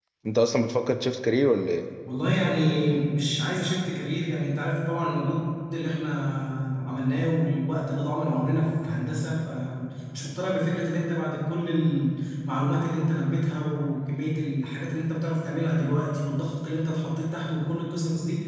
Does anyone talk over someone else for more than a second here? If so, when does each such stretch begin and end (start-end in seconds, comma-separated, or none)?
none